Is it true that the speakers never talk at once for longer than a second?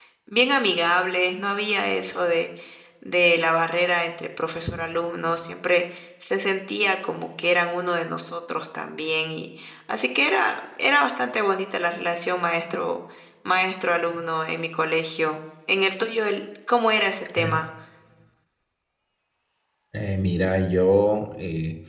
Yes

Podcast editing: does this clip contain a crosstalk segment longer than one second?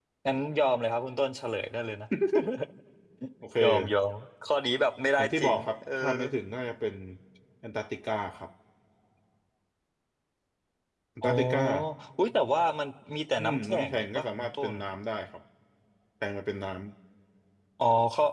Yes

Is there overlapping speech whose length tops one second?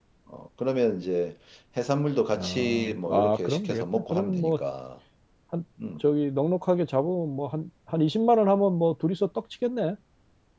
Yes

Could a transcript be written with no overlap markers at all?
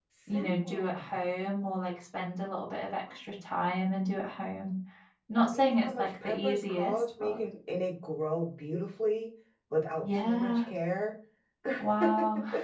No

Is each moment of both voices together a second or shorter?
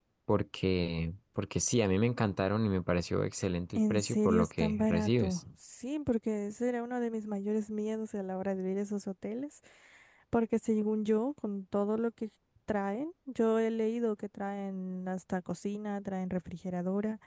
No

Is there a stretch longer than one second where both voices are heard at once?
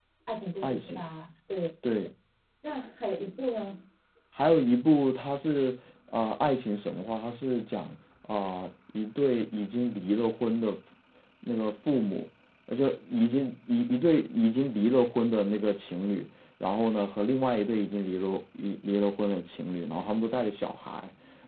No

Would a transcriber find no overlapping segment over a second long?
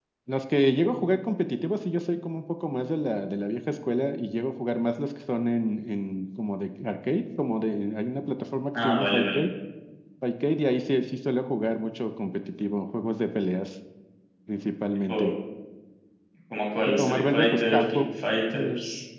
No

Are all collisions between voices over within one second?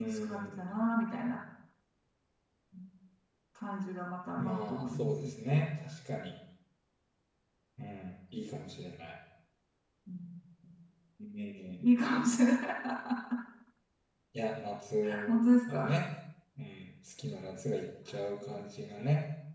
No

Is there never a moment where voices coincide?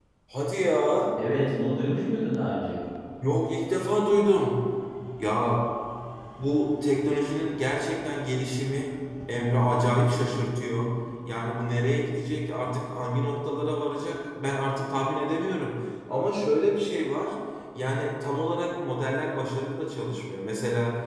Yes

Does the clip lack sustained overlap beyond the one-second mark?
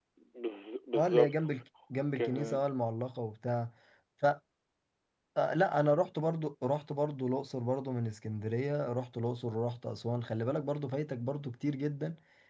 Yes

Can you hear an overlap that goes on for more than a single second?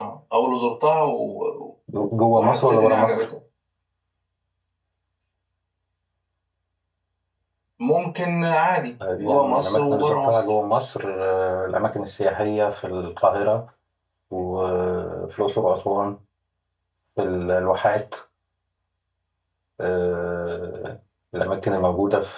Yes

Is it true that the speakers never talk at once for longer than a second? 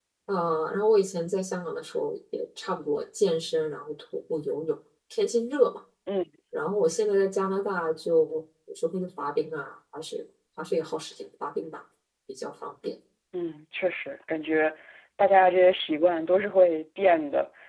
Yes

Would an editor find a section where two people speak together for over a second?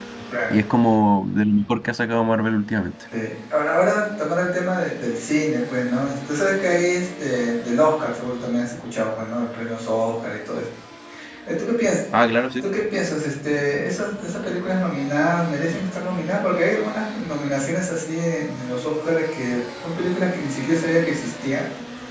No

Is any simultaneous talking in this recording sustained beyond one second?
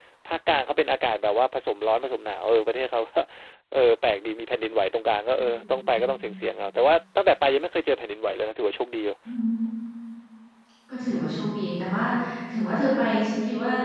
No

